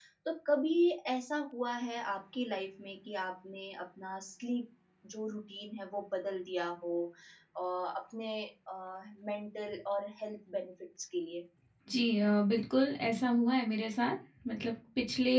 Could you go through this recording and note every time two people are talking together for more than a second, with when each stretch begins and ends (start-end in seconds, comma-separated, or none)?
none